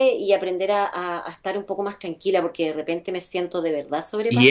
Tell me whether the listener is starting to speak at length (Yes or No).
Yes